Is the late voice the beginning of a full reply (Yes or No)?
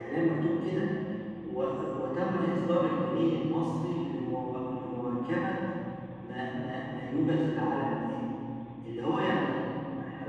No